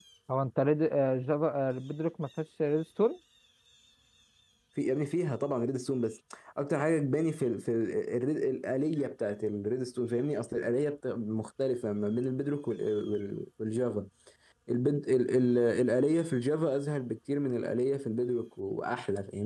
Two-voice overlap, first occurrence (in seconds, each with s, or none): none